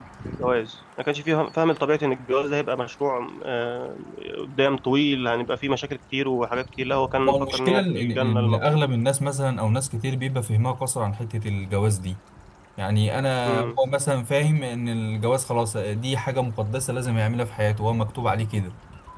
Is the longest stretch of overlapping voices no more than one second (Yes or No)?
No